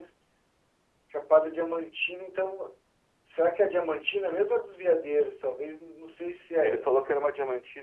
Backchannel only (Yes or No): No